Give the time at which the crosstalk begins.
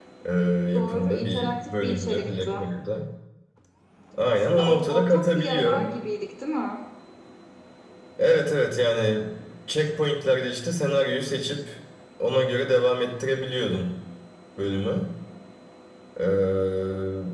1 s

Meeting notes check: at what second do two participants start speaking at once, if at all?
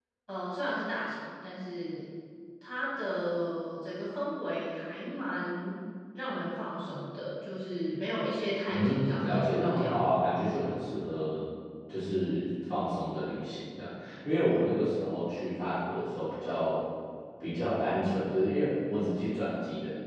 9 s

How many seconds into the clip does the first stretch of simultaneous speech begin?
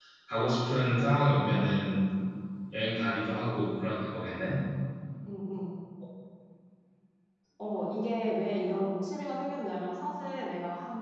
none

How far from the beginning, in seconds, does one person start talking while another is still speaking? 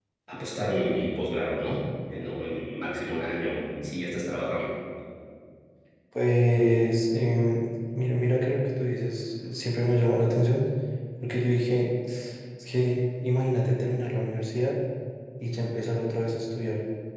none

